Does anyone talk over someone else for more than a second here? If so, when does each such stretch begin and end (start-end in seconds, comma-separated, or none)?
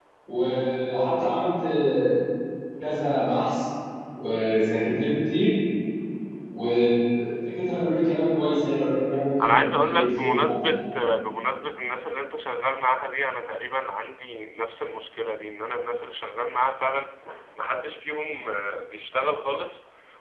9.4-10.8